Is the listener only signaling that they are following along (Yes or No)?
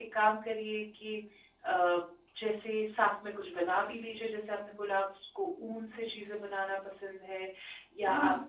Yes